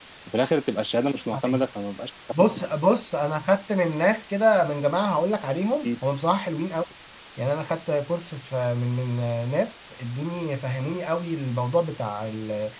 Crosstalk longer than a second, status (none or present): none